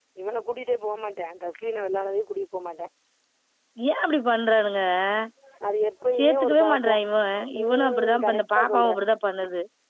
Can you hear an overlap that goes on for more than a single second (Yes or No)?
Yes